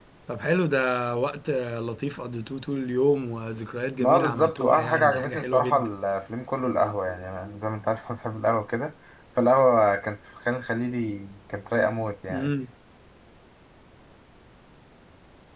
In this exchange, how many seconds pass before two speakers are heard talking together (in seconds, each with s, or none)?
4.0 s